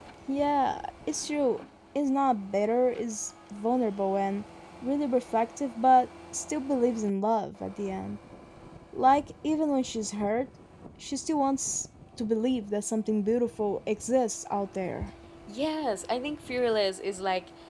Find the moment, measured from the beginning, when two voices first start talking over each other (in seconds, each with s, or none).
none